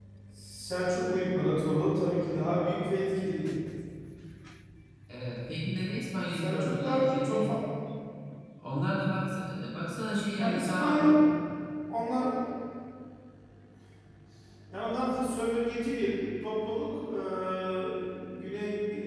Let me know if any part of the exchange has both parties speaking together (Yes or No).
Yes